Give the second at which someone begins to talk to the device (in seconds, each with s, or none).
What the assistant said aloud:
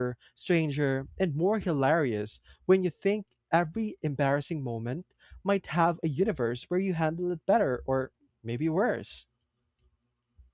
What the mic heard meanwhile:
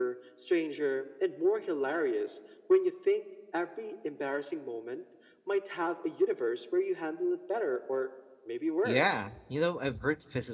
8.8 s